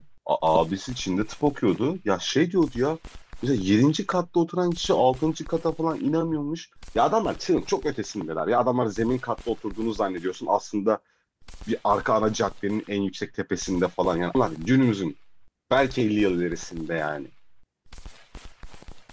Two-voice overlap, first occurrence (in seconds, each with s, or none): none